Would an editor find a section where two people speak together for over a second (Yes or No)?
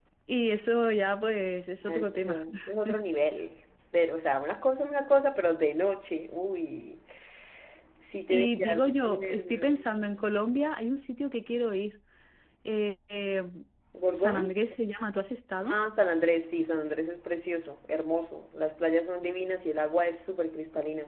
Yes